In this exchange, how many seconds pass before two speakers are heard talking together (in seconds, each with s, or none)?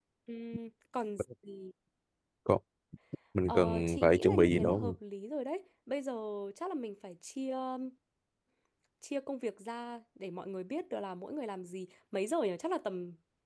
3.5 s